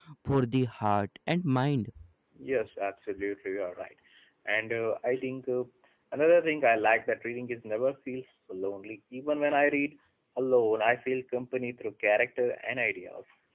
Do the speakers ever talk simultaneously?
No

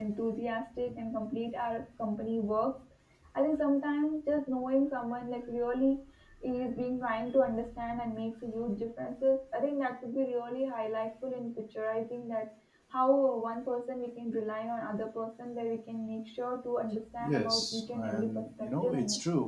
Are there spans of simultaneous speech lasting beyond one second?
Yes, from 17.2 s

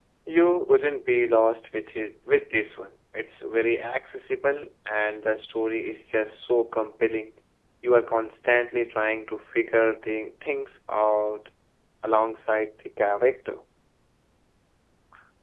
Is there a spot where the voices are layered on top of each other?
No

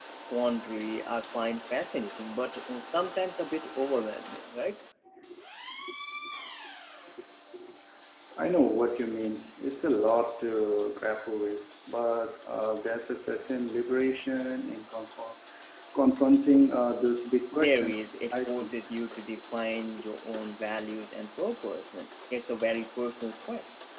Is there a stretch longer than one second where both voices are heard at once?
Yes, from 17.5 s

